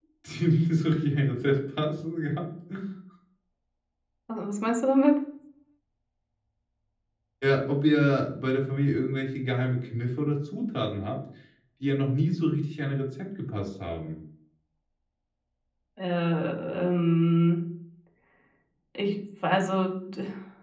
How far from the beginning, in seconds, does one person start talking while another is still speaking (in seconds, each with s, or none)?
none